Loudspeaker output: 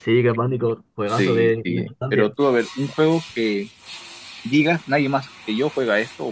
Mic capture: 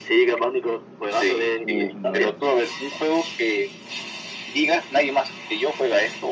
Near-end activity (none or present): present